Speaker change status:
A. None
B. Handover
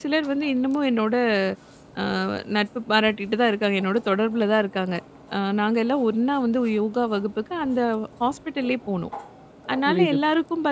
A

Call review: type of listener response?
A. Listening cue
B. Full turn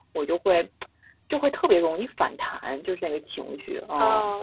B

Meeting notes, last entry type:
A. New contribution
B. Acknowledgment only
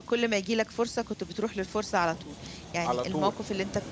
B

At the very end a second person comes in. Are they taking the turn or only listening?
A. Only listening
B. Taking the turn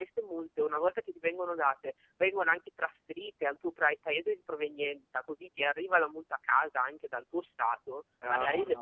A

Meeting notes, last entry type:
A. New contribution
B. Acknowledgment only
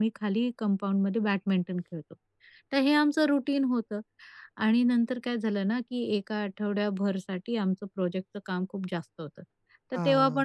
B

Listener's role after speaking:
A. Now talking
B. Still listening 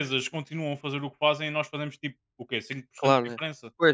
A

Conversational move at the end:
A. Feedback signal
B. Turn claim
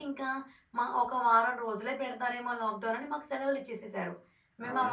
A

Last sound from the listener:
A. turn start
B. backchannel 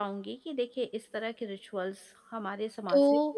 A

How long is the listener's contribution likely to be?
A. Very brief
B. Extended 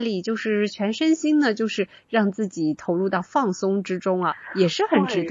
B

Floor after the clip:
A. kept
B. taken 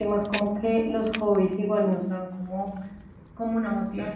A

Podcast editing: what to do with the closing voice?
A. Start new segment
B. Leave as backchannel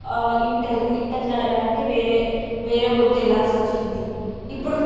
B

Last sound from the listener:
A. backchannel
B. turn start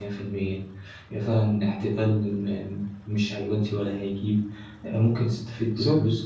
A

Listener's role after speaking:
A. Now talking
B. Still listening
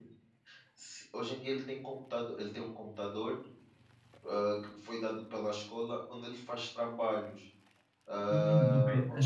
A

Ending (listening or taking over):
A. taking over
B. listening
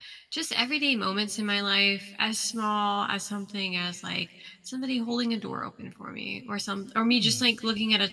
B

